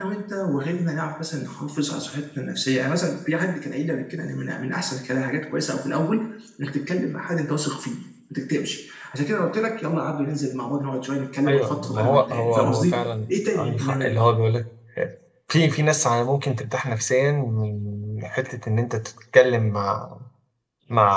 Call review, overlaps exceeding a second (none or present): present